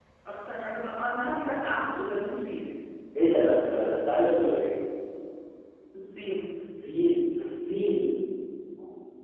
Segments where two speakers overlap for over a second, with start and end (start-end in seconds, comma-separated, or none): none